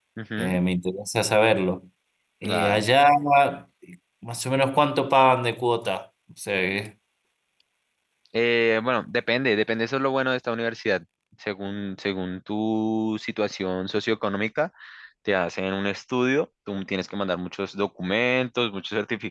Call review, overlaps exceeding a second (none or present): none